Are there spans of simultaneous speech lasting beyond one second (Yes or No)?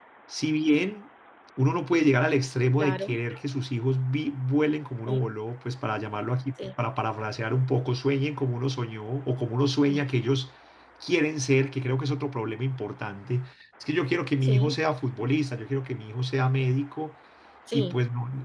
No